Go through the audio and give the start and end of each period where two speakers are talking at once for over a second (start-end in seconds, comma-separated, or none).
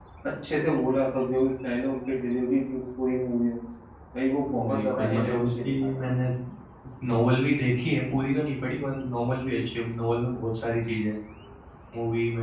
4.5-6.0